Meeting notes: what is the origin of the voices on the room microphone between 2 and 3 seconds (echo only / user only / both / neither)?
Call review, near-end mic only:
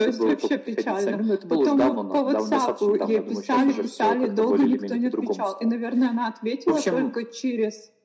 echo only